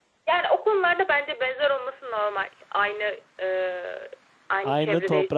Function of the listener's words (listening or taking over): taking over